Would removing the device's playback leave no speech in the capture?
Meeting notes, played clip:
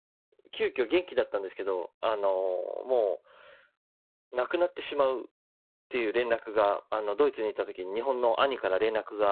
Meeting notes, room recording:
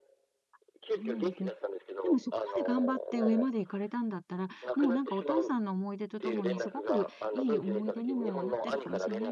No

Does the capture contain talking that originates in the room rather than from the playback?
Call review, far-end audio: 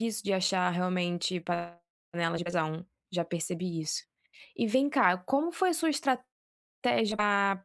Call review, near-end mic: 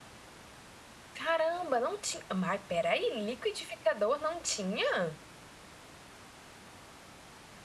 Yes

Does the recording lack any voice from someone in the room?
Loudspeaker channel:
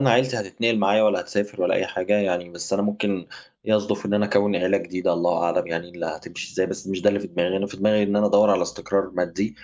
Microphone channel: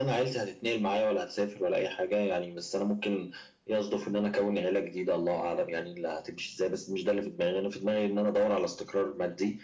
Yes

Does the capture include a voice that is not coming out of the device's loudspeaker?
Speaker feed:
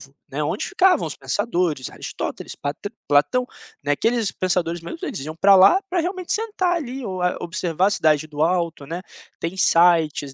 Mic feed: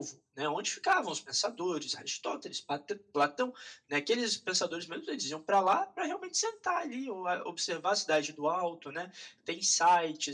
No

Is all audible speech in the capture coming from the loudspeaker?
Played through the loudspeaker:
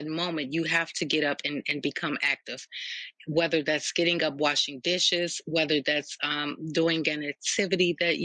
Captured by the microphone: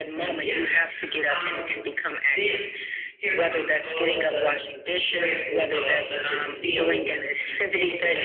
No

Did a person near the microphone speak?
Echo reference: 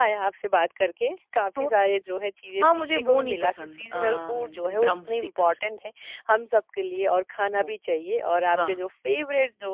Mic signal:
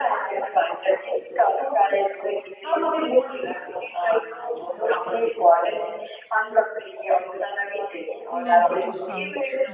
Yes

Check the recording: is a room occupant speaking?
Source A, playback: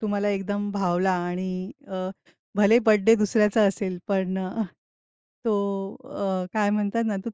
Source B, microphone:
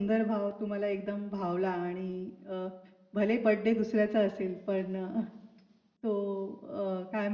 No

